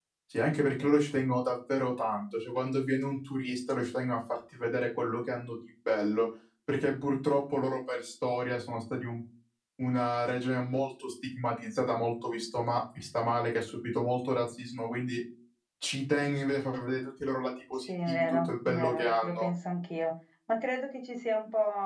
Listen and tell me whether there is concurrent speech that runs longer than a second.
Yes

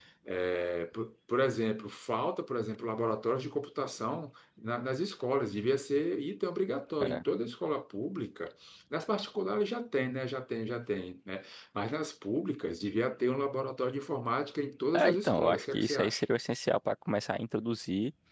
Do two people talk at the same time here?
Yes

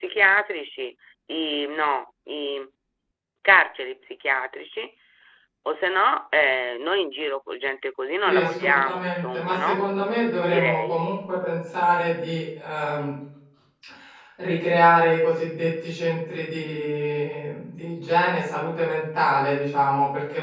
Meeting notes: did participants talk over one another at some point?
Yes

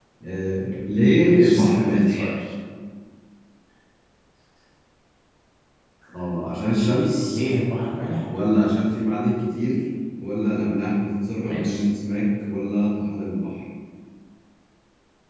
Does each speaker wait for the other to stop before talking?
No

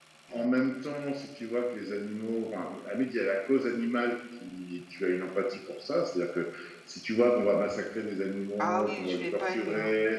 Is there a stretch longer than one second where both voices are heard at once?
Yes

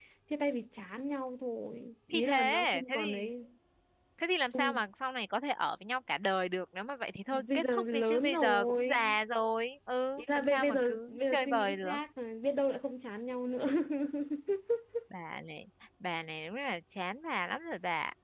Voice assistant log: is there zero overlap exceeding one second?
No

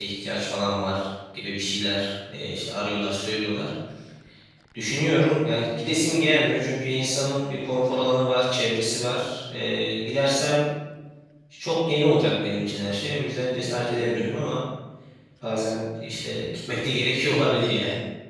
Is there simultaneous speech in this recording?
No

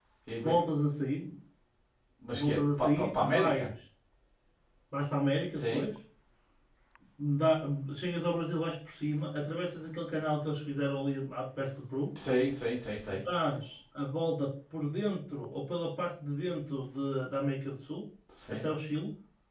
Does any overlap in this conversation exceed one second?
Yes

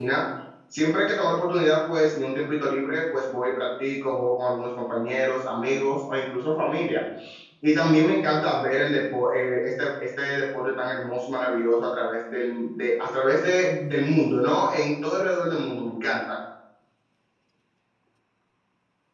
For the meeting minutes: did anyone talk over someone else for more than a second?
No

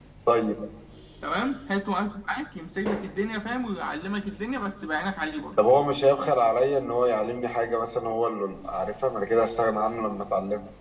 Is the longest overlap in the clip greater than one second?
No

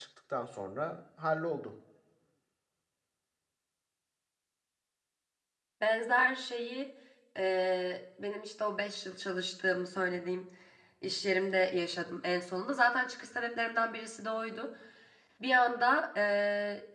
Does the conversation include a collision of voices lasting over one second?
No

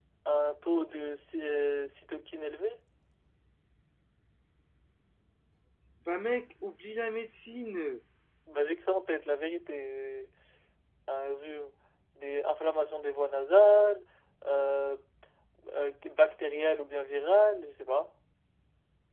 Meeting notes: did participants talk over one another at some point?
No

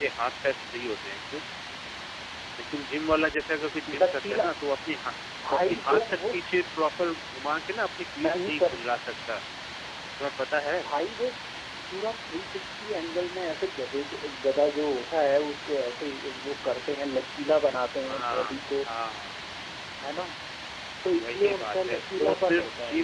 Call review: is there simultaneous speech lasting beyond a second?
Yes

